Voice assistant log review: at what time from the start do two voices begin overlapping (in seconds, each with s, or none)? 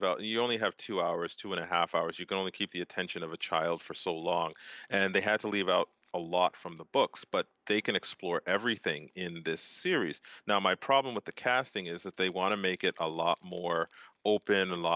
none